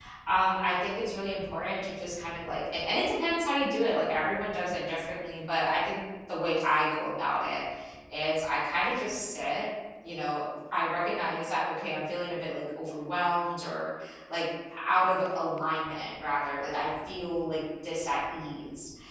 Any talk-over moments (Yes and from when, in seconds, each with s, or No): No